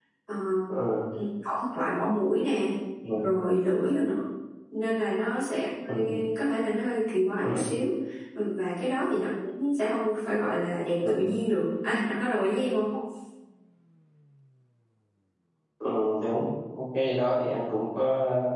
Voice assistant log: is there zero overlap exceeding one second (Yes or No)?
Yes